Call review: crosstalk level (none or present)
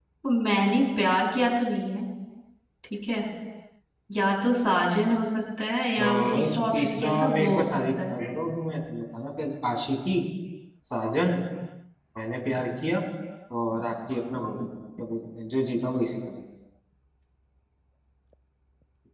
present